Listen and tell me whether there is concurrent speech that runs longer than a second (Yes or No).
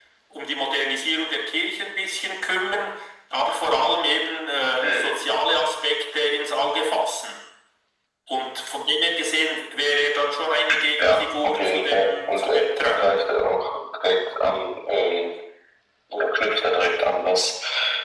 Yes